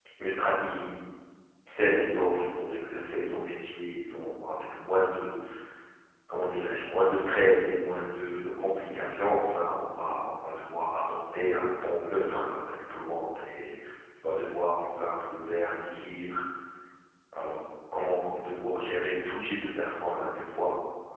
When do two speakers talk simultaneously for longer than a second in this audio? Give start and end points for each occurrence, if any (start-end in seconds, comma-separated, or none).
none